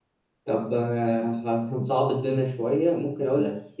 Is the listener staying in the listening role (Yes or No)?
Yes